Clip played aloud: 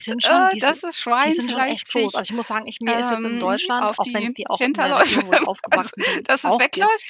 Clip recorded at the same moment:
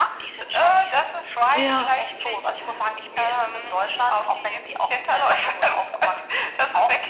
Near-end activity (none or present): present